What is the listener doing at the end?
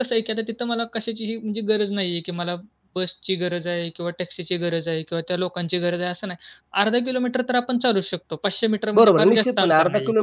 taking over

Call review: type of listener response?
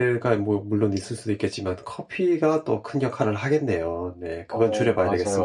taking over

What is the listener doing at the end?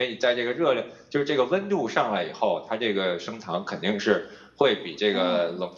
listening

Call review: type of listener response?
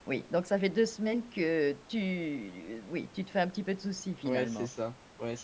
taking over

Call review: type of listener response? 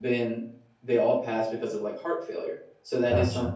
listening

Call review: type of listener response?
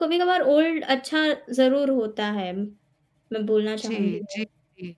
taking over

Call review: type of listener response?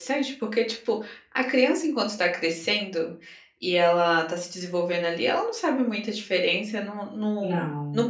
listening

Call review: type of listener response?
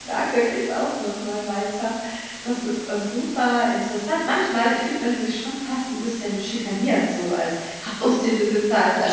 listening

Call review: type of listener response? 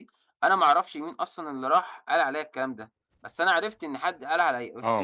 taking over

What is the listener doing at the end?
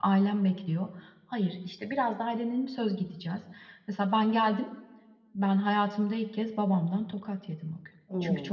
listening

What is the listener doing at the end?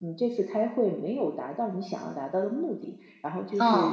listening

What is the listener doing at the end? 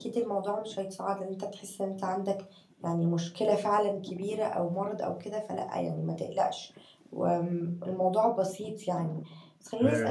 listening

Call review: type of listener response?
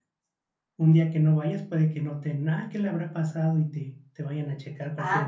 taking over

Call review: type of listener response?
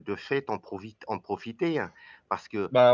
listening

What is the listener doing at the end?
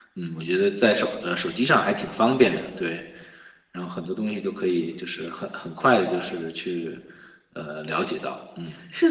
taking over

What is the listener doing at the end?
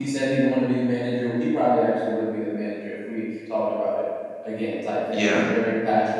listening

